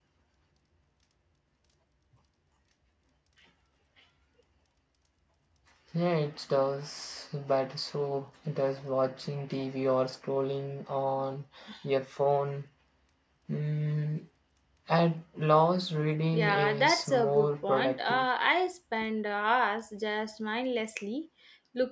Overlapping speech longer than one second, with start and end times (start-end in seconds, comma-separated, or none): 16.3-18.3